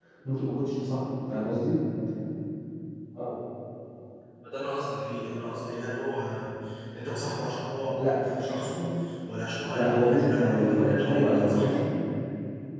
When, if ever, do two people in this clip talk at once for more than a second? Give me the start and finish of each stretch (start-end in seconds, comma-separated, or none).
9.7-11.8